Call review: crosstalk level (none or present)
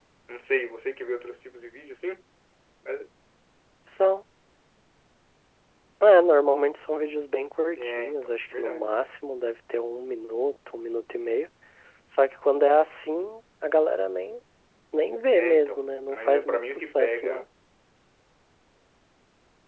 present